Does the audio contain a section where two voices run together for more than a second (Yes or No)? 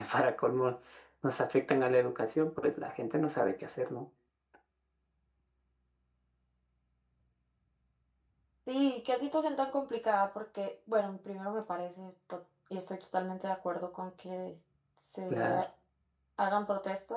No